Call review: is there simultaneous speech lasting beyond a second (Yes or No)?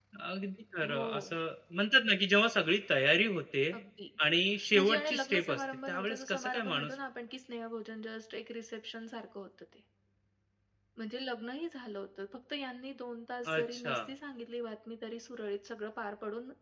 Yes